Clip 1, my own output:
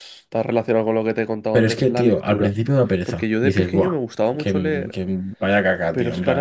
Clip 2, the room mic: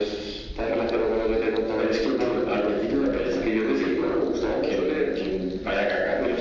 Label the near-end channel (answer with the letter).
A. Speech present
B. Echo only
B